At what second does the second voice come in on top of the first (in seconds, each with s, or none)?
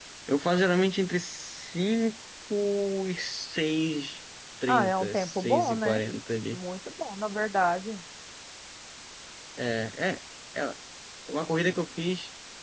4.7 s